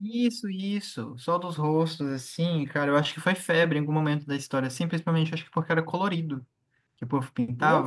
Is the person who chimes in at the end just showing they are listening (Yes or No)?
No